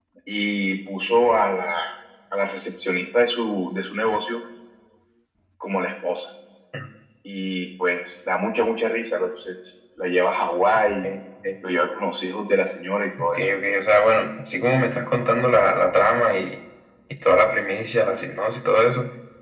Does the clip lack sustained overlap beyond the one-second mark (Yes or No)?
Yes